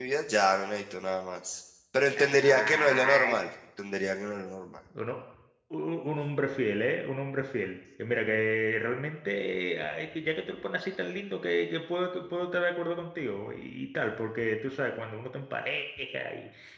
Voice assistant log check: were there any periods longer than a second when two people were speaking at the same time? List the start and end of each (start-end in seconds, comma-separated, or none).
2.1-3.4